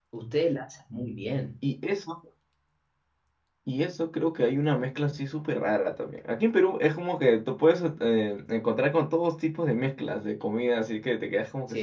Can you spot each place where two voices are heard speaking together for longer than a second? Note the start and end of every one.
none

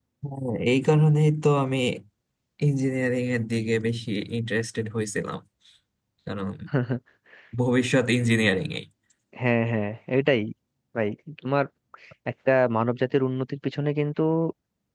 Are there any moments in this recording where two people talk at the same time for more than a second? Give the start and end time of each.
none

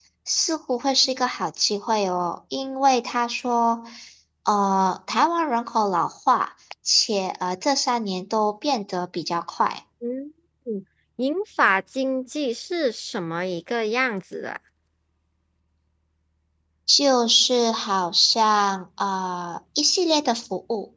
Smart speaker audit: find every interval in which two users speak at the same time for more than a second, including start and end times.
none

